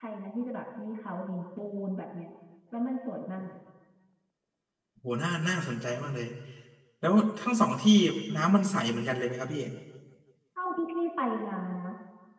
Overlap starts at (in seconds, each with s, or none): none